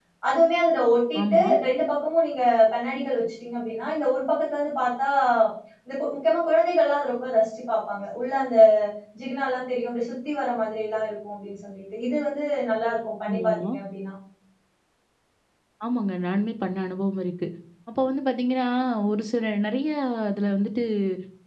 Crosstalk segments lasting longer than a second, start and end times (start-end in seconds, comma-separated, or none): none